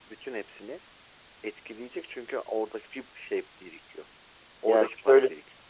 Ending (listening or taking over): taking over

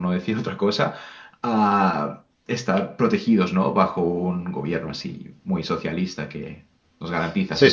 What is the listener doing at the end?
taking over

